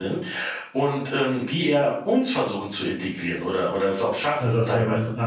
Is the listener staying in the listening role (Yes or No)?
No